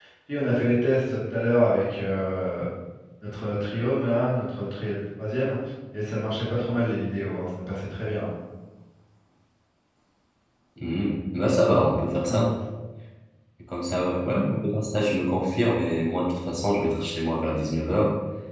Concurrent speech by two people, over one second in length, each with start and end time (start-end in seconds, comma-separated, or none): none